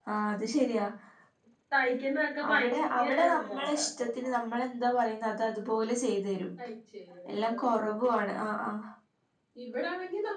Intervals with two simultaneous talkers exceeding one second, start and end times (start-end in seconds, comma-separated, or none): 2.5-3.8